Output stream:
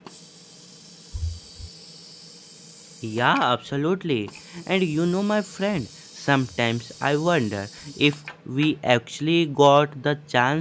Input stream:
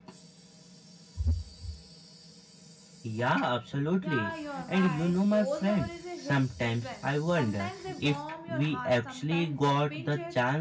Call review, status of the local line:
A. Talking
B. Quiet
A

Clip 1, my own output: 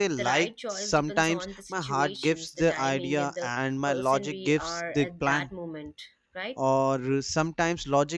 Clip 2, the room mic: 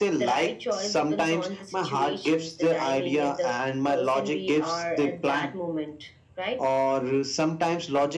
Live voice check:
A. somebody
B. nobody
B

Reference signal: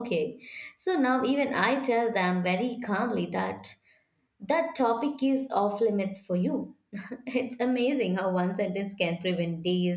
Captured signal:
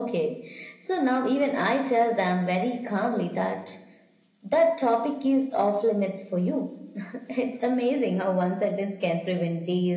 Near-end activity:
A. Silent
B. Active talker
A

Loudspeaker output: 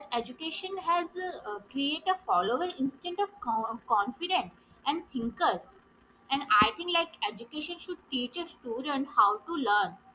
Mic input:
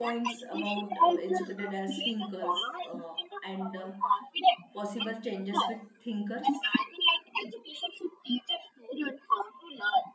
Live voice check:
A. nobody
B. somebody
B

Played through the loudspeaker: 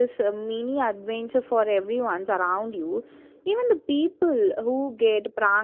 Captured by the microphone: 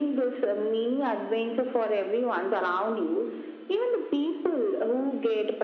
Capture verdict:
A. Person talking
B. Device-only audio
B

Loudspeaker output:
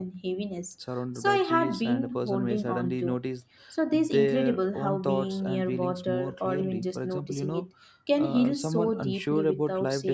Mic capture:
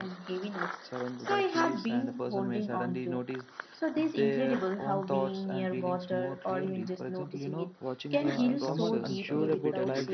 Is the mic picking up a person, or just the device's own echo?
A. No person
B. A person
B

